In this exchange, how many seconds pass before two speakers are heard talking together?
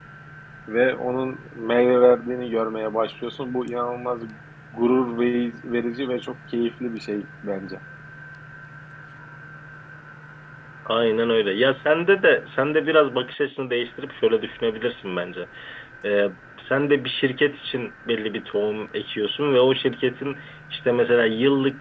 none

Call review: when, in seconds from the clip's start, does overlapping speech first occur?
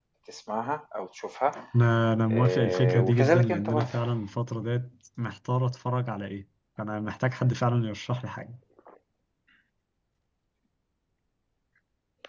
2.3 s

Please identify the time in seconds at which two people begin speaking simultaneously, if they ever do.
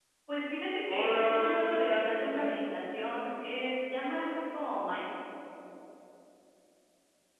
0.9 s

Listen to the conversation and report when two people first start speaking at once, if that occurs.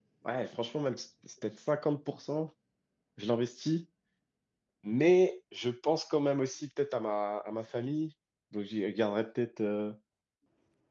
none

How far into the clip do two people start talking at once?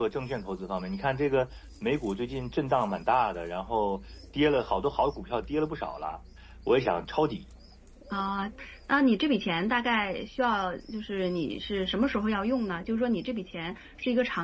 none

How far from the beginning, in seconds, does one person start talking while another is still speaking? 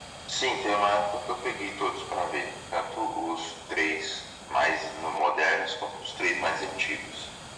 none

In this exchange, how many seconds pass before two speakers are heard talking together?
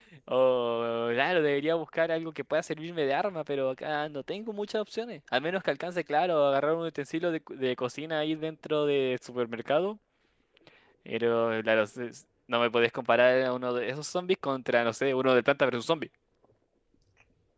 none

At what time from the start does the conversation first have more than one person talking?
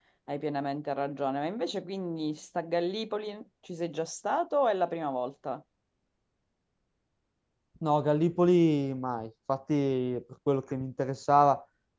none

